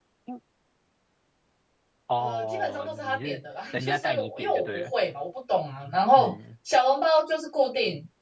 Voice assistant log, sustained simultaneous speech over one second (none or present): present